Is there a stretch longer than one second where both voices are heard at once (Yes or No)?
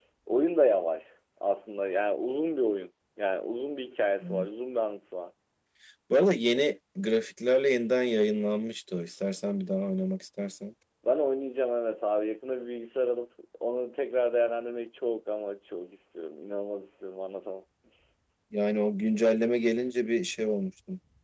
No